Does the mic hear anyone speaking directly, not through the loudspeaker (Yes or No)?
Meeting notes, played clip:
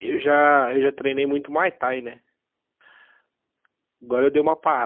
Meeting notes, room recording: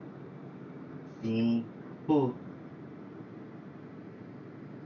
Yes